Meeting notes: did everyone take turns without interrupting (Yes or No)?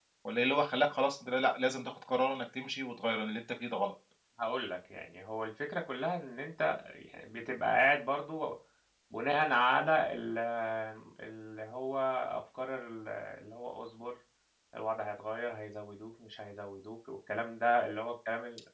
Yes